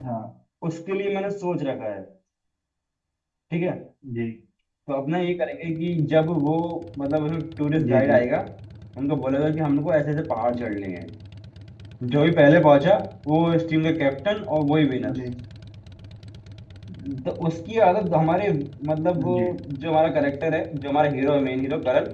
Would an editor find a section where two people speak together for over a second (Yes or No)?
No